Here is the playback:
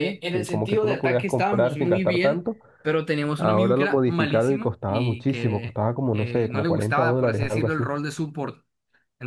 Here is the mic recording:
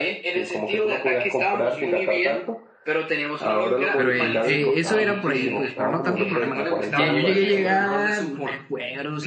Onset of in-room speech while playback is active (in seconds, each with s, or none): 3.9 s